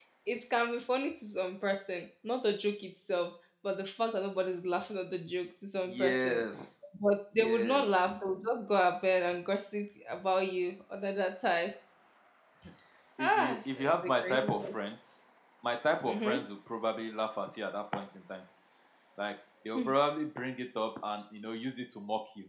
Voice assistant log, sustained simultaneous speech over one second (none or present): present